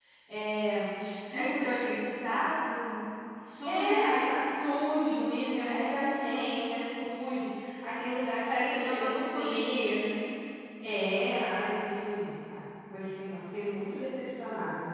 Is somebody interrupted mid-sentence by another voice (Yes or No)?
Yes